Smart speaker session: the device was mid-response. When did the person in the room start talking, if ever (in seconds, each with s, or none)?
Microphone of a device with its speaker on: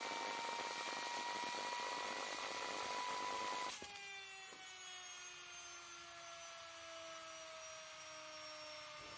none